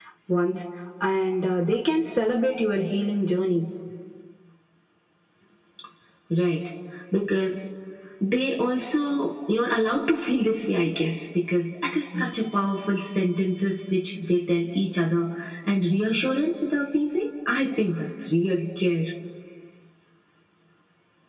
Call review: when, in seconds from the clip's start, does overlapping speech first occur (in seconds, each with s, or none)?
none